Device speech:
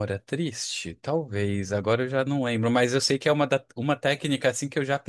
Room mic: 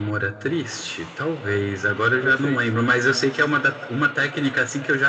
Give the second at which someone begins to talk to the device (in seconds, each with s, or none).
2.2 s